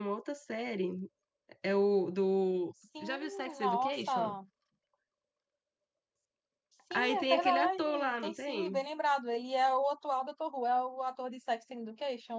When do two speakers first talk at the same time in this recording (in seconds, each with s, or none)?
3.0 s